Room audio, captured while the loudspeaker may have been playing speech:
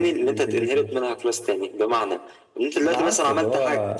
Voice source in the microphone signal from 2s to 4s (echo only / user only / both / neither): both